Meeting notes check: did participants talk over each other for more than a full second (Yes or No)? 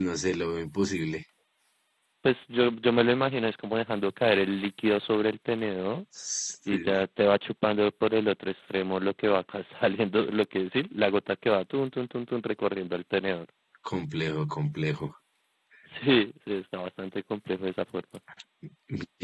No